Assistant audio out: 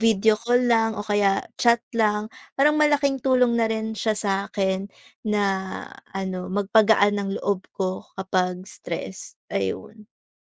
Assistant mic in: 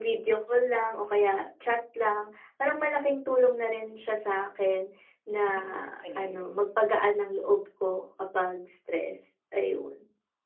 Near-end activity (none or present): present